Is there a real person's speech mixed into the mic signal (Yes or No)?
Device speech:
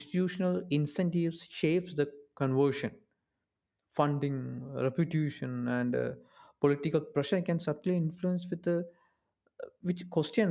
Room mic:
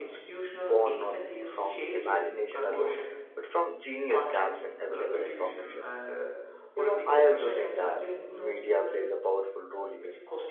Yes